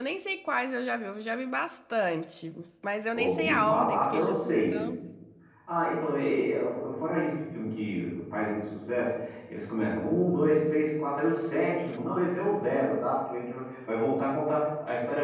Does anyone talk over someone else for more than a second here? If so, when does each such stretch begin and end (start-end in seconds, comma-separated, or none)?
3.1-4.9